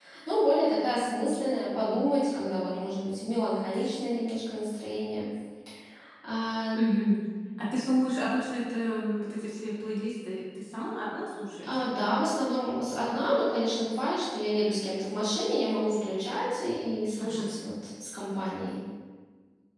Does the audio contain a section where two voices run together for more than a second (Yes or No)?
No